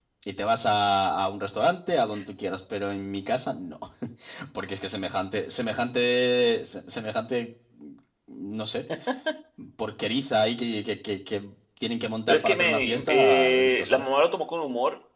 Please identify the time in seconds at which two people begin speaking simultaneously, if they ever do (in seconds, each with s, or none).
12.3 s